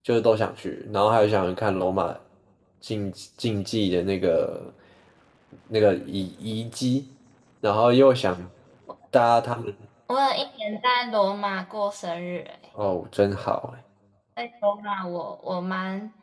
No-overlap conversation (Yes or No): Yes